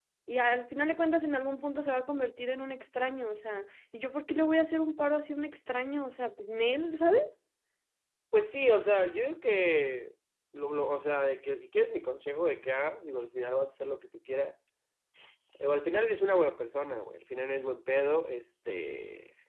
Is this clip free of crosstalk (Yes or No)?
Yes